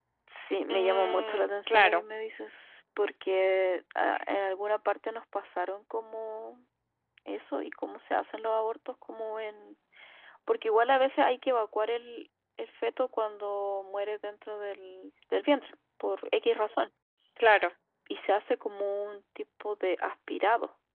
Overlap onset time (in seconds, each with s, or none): 0.7 s